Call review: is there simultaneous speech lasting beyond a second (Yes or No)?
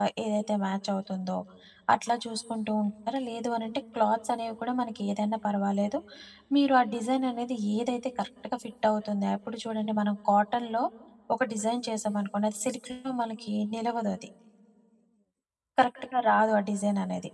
No